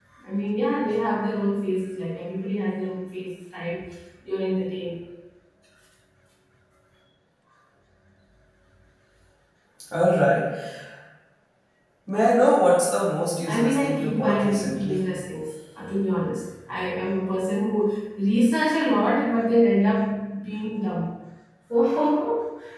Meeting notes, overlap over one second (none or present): present